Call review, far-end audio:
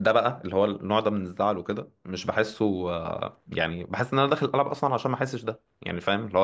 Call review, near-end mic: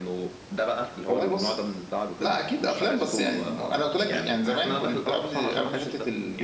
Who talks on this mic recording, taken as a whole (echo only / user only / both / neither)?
both